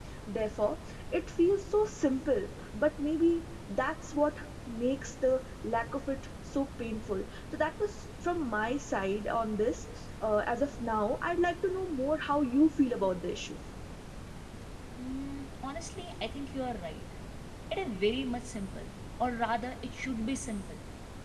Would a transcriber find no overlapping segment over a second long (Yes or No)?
Yes